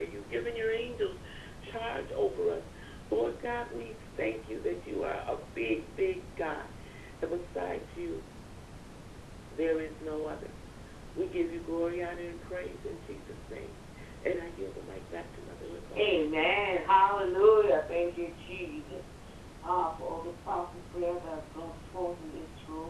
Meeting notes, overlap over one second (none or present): none